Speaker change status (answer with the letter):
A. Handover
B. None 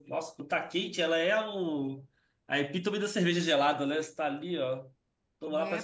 A